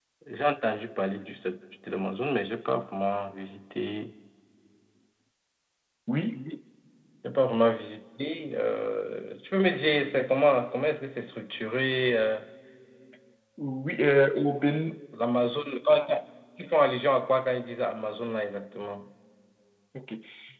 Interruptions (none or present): none